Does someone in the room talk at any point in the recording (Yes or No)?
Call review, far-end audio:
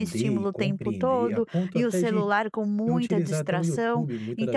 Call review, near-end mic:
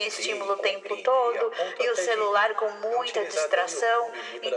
No